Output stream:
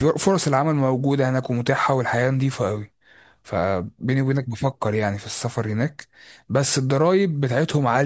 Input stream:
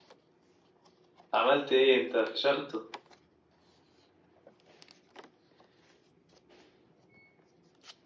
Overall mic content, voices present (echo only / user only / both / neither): user only